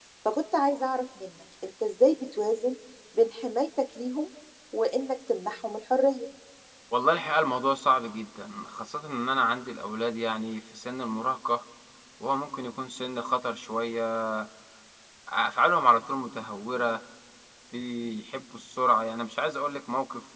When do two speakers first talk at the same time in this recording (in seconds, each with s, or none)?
none